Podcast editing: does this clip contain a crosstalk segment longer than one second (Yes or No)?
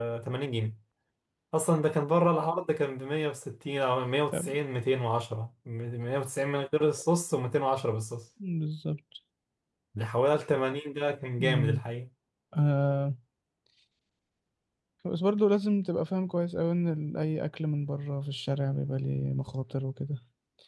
No